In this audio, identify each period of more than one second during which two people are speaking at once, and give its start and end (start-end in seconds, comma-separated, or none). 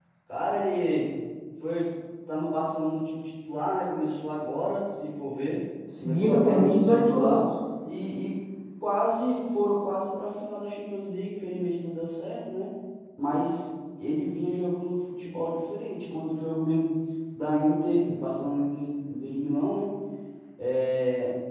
6.0-7.5